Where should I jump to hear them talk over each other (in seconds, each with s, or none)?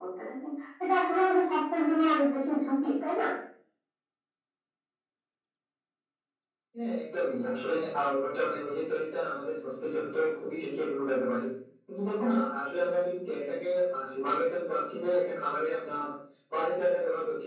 none